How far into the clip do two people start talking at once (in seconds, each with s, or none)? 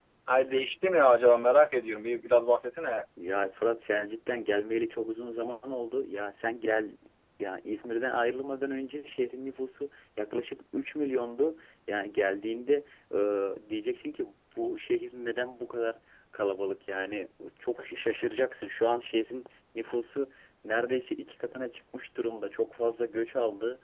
none